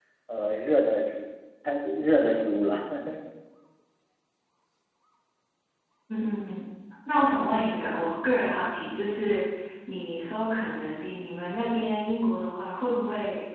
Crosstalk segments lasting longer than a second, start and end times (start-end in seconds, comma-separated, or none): none